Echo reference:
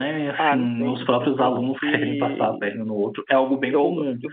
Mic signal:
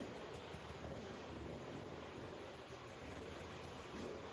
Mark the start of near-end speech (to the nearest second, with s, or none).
none